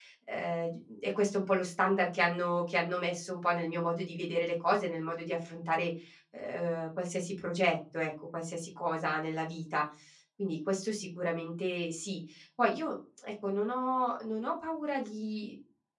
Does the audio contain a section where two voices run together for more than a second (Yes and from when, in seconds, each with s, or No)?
No